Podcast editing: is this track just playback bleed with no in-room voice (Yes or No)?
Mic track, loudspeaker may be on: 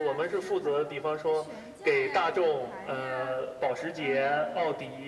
No